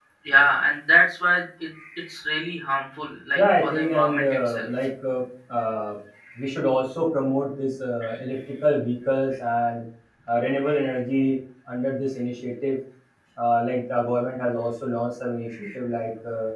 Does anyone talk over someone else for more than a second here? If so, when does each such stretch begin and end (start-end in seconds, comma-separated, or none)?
3.4-4.7